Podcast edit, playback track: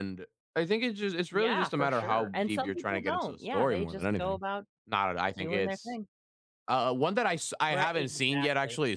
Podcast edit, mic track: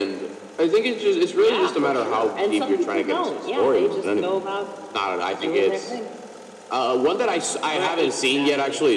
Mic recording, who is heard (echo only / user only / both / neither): echo only